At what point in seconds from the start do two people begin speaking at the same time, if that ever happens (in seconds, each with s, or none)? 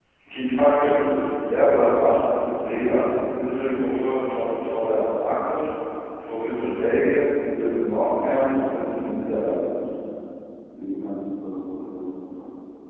8.3 s